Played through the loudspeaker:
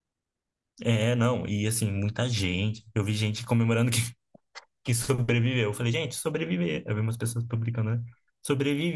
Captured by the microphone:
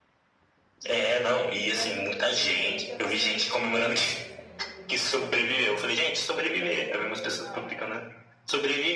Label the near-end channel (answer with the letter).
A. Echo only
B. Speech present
B